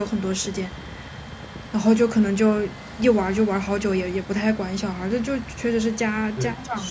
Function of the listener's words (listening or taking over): taking over